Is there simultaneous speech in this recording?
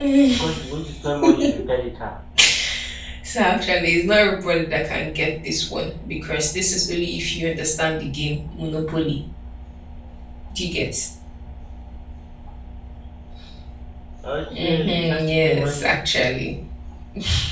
Yes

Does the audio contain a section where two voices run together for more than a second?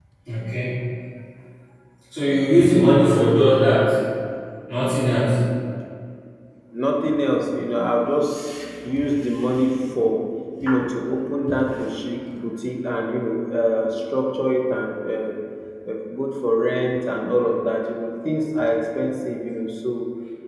No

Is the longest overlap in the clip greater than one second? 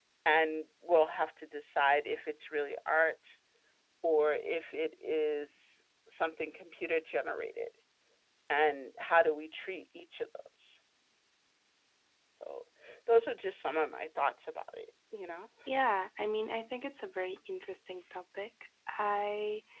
No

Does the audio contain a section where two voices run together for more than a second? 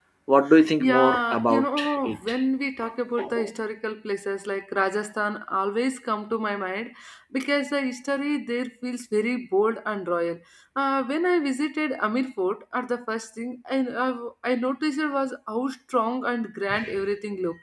Yes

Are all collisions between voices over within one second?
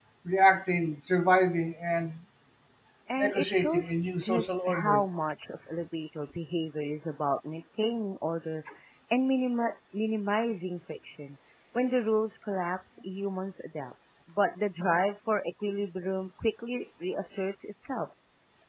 No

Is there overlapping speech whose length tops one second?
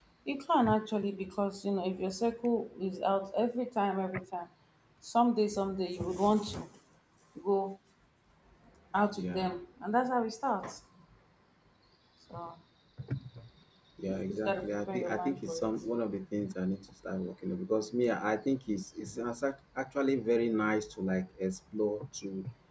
Yes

